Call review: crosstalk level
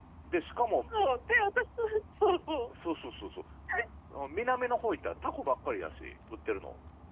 none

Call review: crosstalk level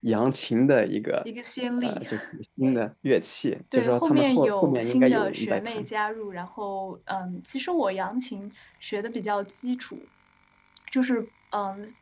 present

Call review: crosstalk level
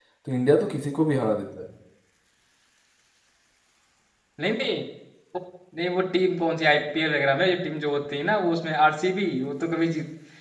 none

